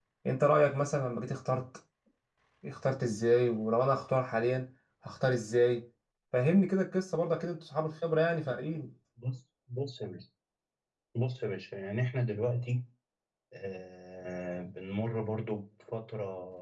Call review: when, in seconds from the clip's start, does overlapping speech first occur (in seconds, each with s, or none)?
none